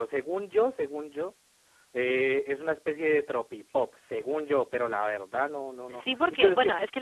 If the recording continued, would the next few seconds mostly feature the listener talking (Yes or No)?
Yes